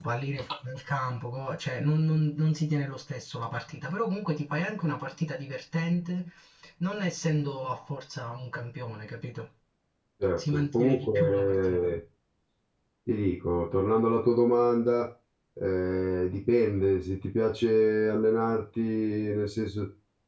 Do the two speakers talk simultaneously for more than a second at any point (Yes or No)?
Yes